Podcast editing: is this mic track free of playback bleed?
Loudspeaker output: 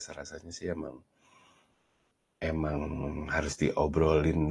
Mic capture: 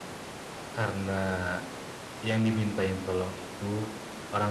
Yes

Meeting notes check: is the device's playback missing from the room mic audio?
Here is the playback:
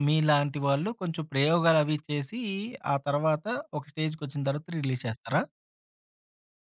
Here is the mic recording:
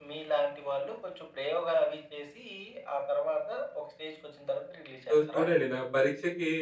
No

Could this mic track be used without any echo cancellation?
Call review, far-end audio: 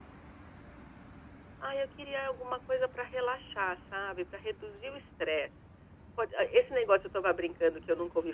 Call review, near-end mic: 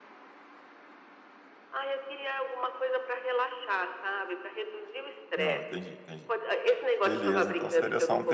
No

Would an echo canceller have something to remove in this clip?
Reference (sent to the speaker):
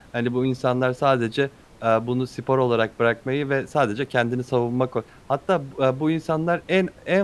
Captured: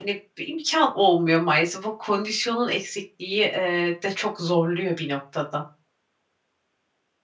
No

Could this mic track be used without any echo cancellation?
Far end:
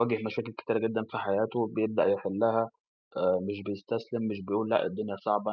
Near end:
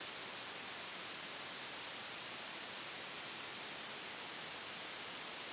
Yes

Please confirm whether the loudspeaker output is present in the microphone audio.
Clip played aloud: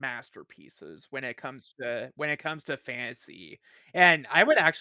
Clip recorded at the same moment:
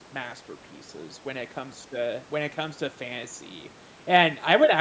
Yes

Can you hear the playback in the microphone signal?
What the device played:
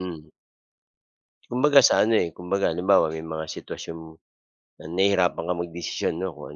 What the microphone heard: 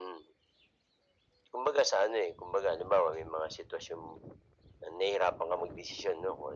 Yes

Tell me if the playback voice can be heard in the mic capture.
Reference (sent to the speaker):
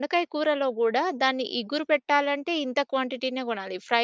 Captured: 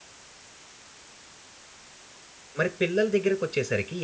No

